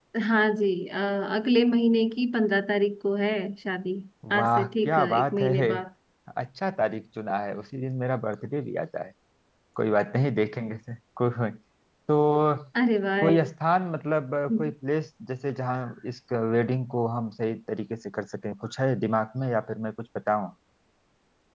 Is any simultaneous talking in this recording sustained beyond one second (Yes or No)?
Yes